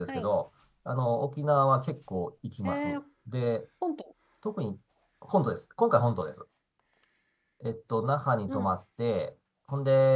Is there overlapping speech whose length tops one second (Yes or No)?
No